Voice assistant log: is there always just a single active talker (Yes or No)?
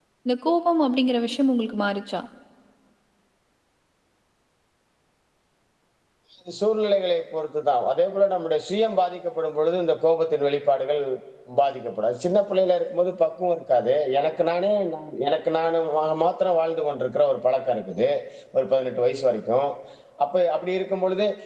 Yes